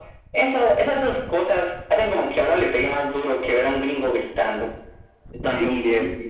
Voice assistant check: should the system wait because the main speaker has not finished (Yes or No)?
No